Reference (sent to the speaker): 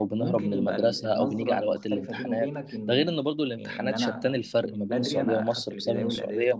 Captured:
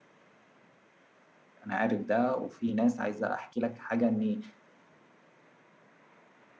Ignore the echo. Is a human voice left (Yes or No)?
Yes